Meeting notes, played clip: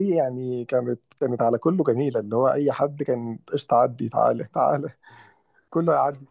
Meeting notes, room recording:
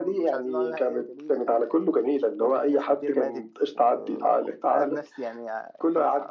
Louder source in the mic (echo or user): echo